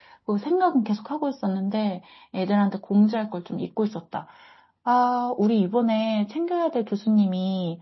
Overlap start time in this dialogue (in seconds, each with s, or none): none